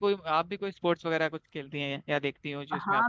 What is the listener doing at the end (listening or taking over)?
taking over